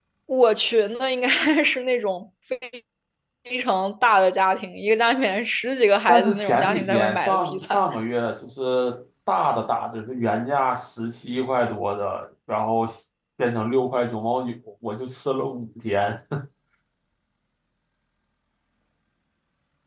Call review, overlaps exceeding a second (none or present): present